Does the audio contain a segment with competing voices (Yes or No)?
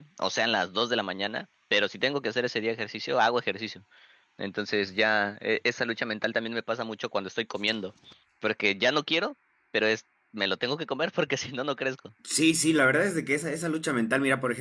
No